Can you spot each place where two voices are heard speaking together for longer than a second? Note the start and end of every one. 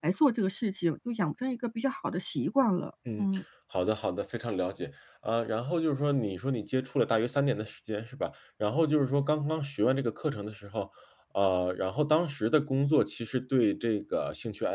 none

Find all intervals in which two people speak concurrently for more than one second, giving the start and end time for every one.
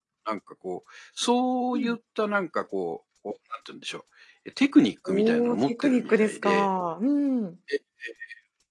5.1-6.7

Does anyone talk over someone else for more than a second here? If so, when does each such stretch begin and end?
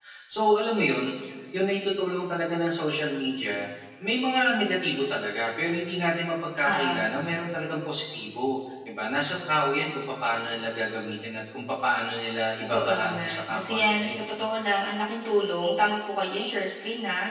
12.7-14.2

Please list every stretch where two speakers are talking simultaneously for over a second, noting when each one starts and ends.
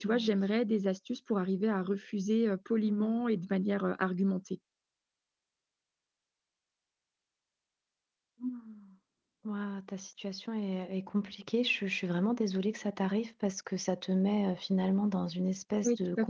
none

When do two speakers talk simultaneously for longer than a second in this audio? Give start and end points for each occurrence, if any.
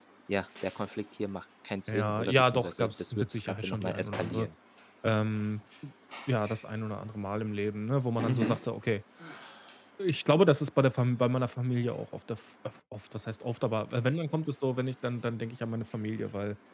1.9-4.5

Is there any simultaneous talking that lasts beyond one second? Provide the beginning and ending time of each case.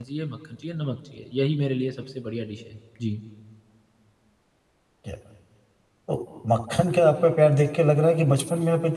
none

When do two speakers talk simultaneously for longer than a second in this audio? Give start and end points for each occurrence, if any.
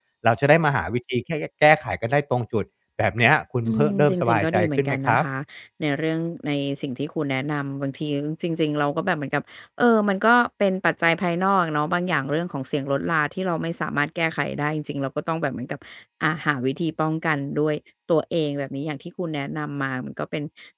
3.7-5.2

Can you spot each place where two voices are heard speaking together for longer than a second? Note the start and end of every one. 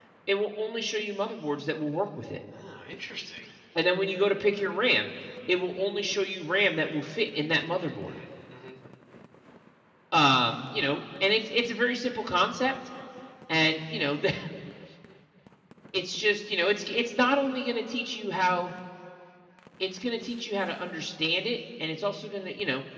none

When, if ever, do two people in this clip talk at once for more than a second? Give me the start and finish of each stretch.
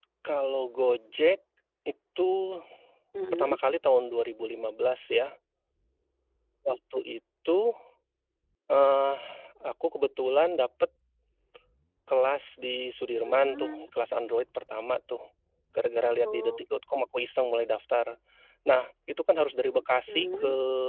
none

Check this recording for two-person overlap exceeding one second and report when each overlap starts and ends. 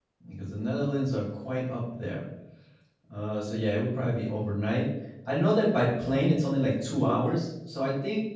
none

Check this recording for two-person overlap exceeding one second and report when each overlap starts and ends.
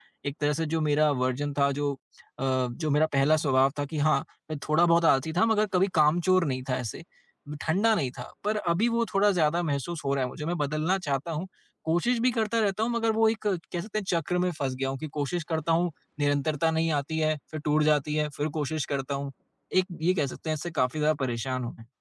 none

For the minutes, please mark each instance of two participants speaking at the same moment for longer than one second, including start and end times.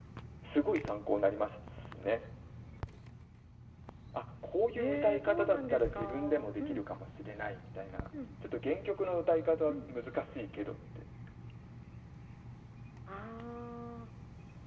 4.8-6.8

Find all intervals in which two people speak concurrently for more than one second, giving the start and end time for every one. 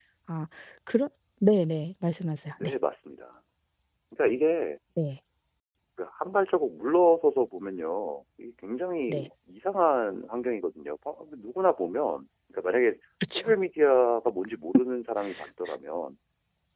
none

